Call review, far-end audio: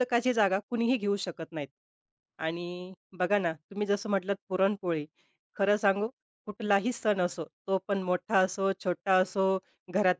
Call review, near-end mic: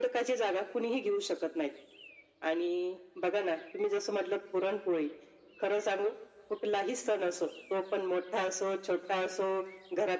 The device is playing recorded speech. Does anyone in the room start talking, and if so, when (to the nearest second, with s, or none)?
none